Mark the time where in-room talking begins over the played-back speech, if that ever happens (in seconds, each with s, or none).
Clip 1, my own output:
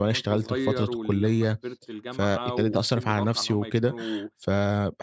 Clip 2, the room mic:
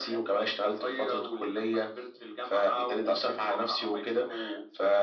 none